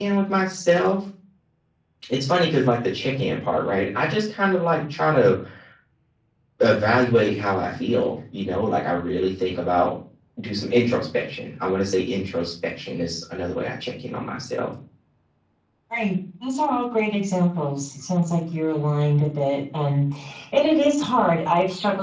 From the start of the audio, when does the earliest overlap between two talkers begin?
none

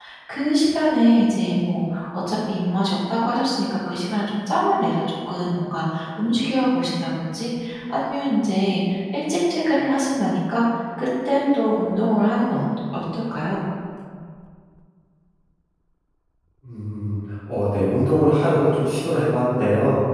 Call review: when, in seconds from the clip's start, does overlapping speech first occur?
none

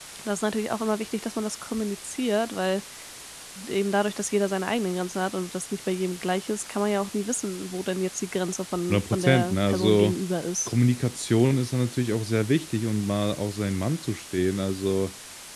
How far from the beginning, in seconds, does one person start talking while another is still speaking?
8.9 s

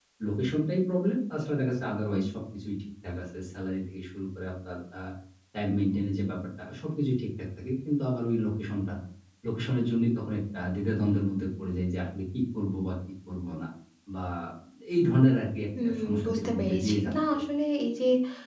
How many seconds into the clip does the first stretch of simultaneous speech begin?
15.8 s

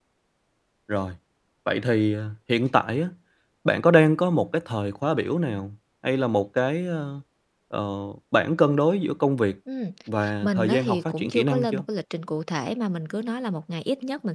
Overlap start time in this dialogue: 10.4 s

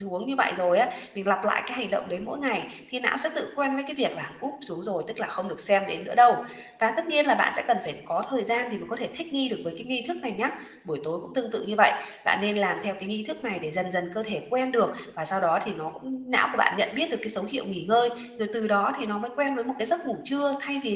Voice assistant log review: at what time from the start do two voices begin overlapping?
none

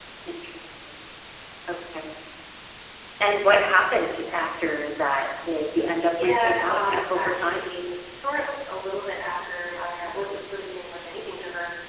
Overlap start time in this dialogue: 6.1 s

